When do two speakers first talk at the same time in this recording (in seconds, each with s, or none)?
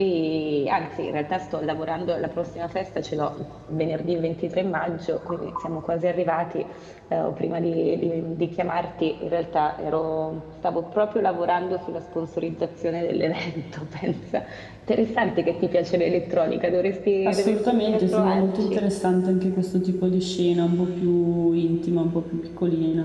17.2 s